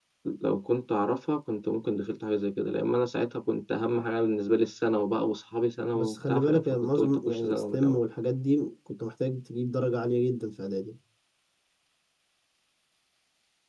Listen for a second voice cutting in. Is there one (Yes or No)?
Yes